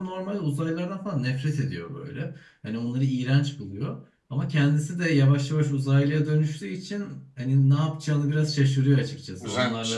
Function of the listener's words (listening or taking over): listening